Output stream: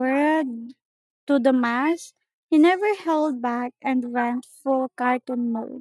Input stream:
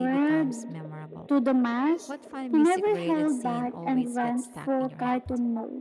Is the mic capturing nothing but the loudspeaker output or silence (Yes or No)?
No